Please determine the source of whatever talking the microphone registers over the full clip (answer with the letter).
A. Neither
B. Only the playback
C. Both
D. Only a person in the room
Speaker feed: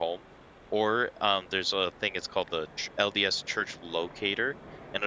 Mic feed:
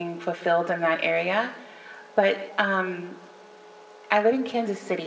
D